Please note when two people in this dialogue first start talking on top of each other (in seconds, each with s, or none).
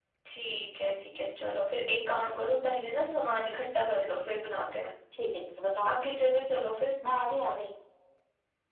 none